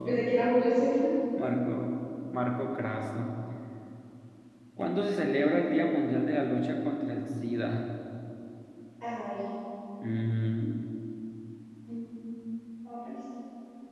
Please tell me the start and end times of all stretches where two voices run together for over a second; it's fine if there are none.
none

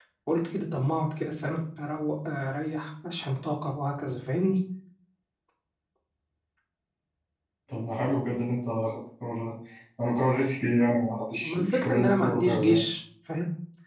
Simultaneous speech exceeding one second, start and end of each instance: 11.4-12.8

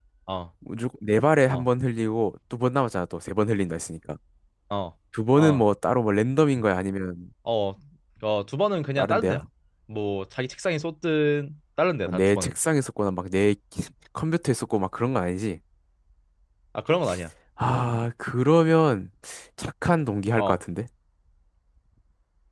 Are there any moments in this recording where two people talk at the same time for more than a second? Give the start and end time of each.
none

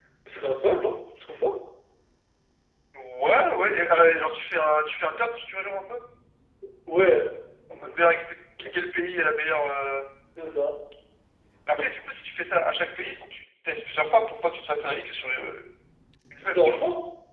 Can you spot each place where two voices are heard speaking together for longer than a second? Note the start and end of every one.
none

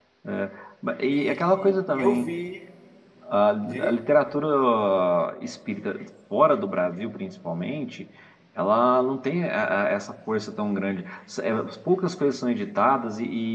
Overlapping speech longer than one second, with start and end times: 1.1-2.3

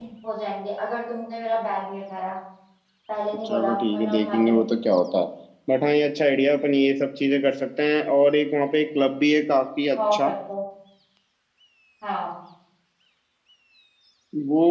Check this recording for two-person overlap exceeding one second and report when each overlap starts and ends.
3.4-4.8

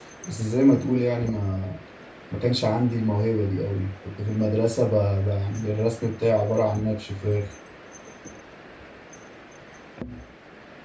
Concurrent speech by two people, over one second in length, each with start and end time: none

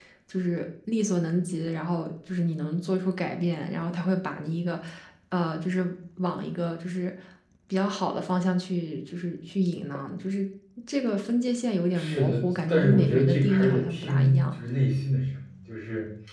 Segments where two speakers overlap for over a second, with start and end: 11.9-14.6

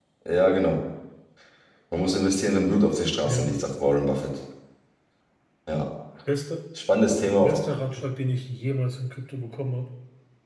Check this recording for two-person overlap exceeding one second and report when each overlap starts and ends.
none

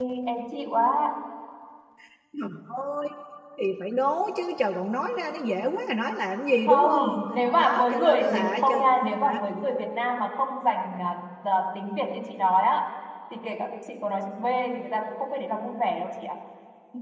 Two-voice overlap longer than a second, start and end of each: 7.5-8.8

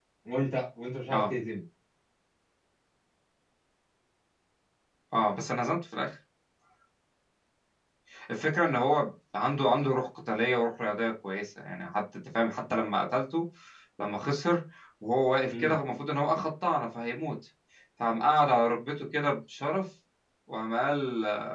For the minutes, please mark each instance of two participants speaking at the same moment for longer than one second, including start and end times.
none

